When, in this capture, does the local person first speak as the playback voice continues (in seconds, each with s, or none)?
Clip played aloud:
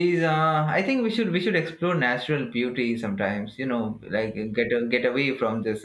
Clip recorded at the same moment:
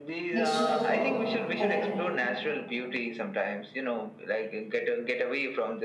0.3 s